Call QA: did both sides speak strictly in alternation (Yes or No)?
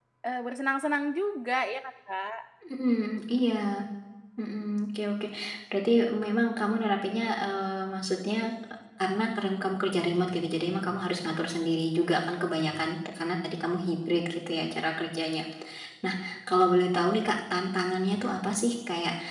Yes